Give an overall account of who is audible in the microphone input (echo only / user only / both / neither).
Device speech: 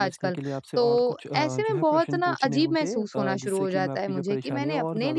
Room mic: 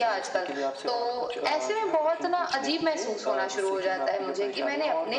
echo only